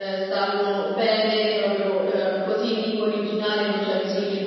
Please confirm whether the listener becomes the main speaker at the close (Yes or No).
No